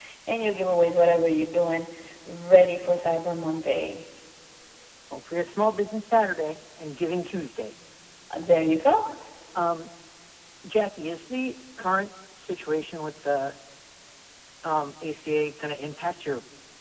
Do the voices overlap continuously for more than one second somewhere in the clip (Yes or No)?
No